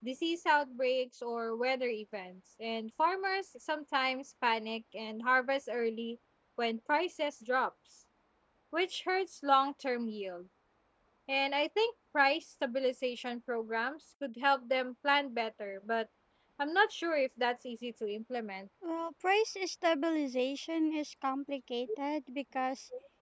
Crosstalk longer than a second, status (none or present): none